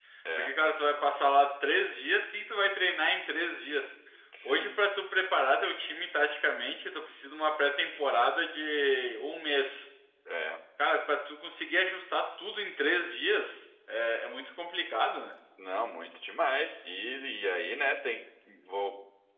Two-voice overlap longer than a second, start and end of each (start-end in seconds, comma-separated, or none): none